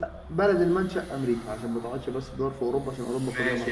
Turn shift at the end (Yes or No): Yes